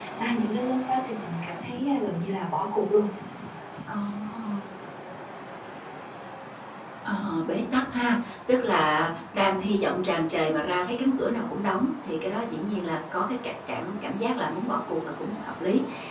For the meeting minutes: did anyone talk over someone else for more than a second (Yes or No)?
No